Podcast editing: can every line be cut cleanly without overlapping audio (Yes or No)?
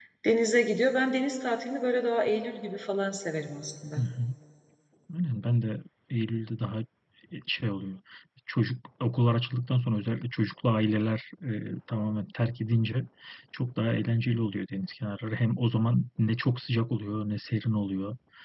Yes